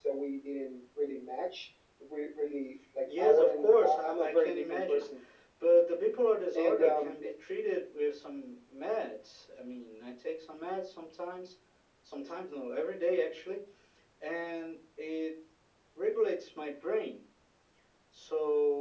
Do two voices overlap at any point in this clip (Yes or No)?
Yes